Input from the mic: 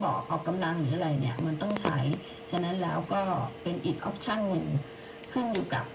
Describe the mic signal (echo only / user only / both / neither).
echo only